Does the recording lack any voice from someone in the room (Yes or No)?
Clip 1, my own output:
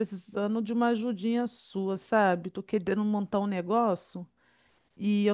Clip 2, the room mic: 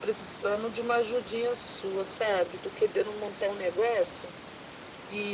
Yes